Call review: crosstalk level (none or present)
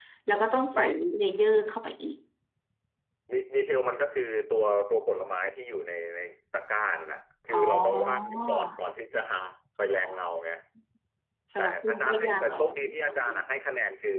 present